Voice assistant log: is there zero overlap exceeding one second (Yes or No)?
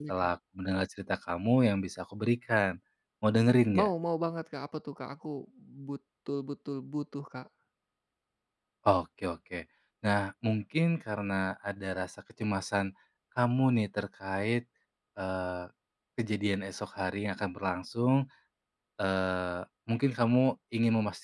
Yes